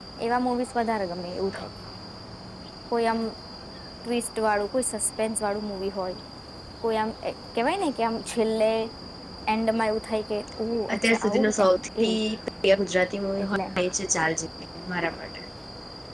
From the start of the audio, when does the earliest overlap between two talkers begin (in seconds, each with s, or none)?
10.9 s